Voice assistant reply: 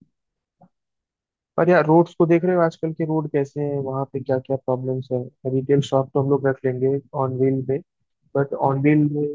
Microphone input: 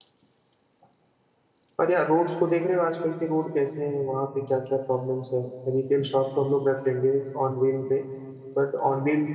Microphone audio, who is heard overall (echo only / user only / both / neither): echo only